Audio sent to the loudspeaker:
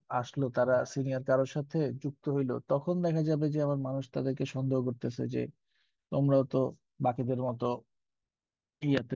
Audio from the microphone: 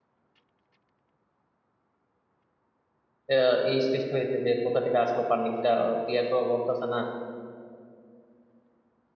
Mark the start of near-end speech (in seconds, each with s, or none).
3.3 s